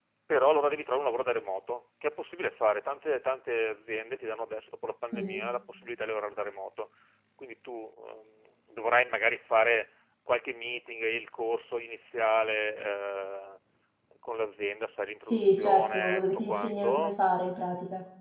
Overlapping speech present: Yes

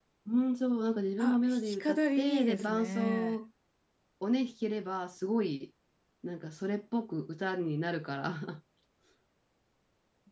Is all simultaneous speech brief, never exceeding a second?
No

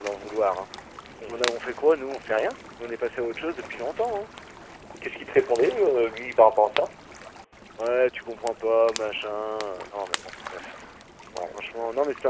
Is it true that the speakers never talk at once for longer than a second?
Yes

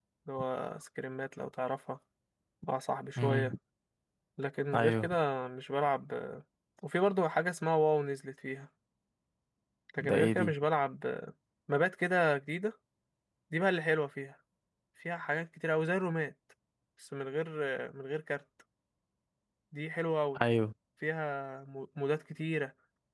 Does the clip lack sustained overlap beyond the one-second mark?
Yes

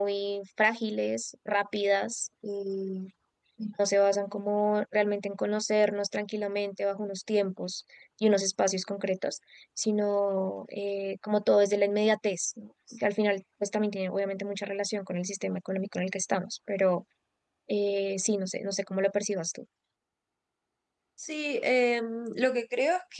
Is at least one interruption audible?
No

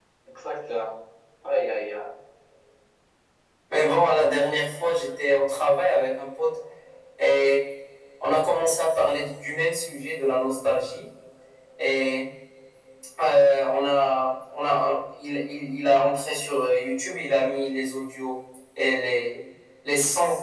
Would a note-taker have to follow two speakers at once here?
No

